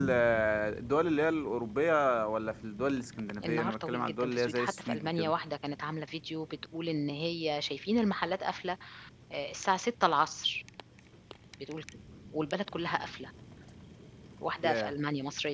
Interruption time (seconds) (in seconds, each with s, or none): 3.4 s